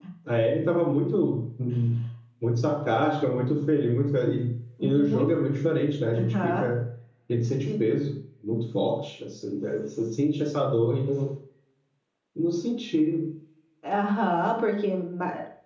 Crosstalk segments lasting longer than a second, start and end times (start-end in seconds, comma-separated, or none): none